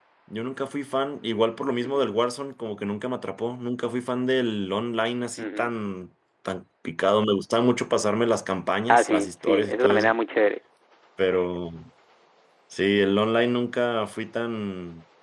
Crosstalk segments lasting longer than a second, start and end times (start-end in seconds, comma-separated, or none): 8.9-10.1